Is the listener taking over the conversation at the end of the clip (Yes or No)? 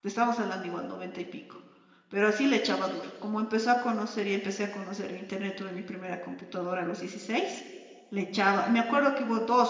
No